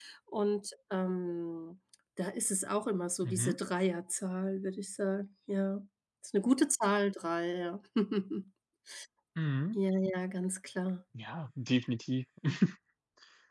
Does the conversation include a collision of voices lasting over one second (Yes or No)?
No